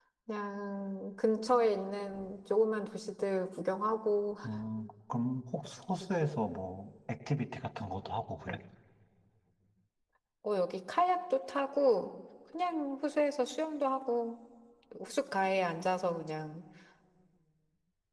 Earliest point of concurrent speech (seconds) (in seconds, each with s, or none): none